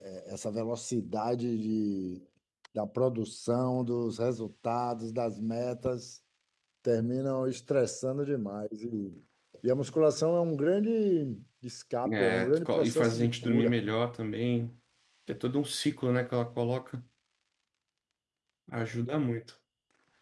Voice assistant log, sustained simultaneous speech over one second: present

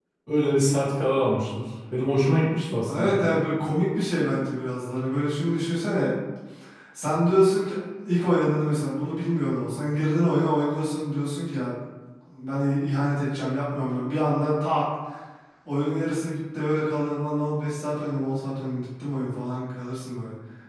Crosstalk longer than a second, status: none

